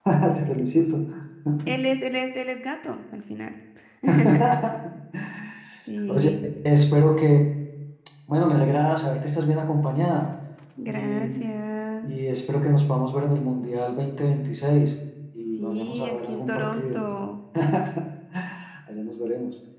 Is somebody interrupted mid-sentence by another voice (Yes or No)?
Yes